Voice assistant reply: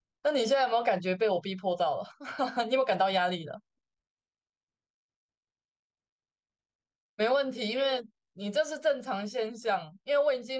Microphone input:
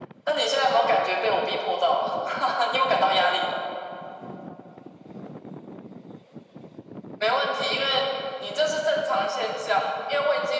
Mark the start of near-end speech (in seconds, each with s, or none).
none